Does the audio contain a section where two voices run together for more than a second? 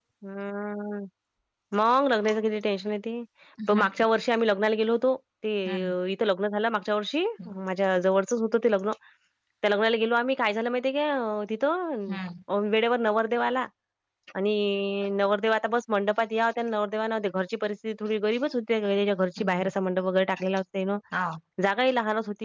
No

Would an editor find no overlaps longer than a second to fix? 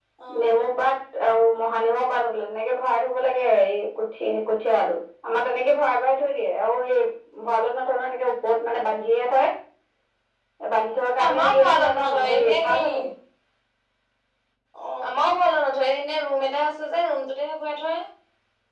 No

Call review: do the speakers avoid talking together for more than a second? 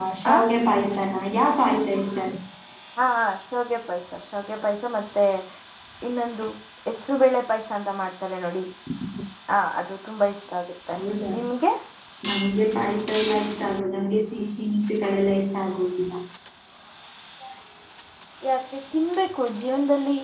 Yes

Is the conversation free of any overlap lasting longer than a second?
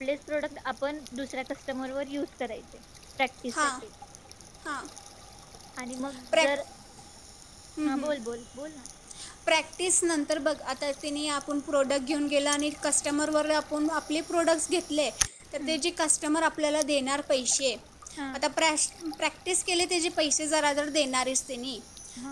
Yes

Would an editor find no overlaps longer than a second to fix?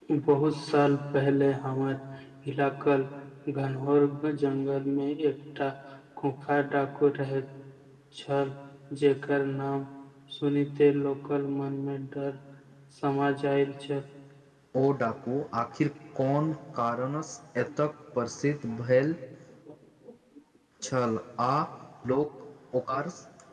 Yes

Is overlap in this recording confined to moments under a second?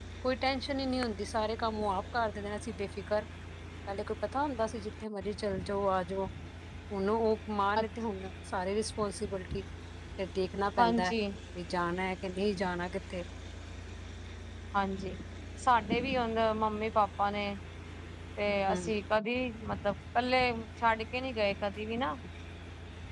Yes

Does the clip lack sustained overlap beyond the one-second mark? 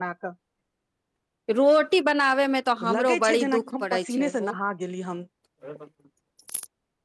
No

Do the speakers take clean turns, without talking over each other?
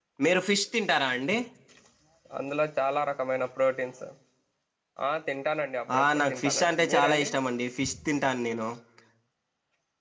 No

